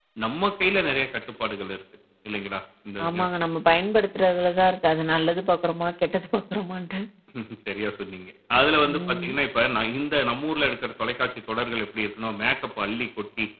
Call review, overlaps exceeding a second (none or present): none